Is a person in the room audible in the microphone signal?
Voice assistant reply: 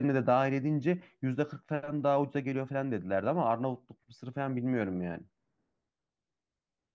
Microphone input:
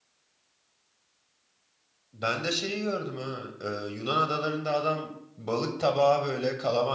Yes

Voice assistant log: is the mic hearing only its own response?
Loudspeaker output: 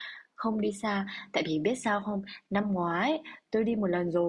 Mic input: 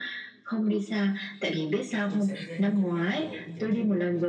No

